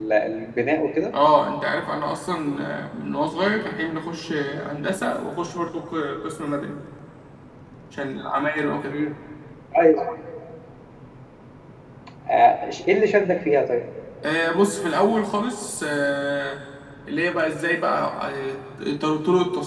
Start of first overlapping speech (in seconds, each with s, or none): none